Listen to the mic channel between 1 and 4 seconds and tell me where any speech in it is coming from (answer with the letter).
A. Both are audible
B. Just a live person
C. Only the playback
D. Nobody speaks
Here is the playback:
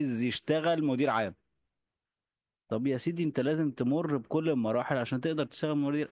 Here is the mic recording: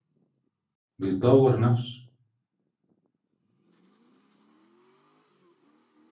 B